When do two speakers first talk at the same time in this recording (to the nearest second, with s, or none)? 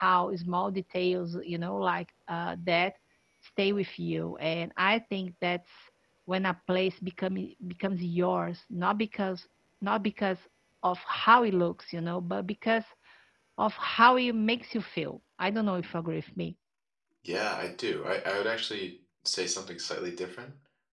none